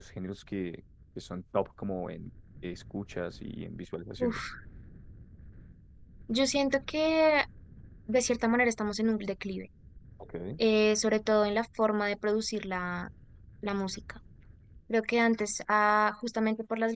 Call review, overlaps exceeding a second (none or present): none